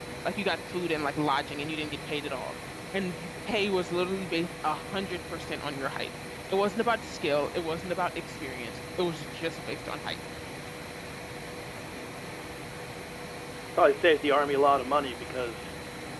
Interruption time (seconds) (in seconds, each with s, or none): none